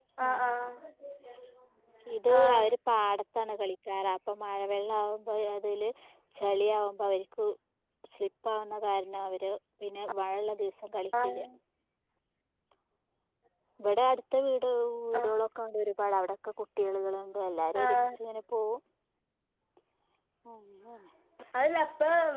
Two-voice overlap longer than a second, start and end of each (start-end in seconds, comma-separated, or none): none